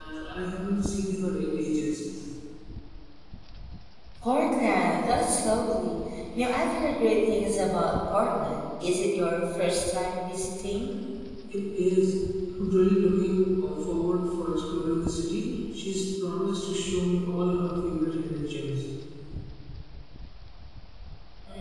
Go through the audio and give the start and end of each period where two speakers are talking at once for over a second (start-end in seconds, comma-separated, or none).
none